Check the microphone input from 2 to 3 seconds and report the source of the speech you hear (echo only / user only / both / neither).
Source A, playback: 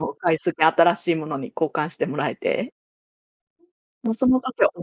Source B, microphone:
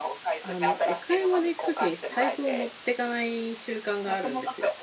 both